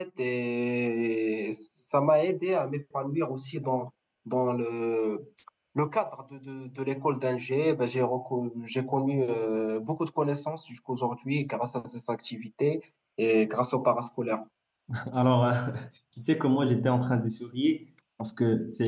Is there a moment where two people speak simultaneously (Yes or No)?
No